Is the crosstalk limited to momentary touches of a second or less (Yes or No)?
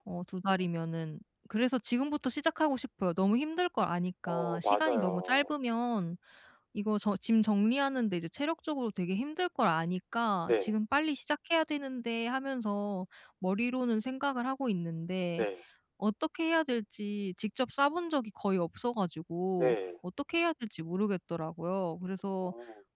No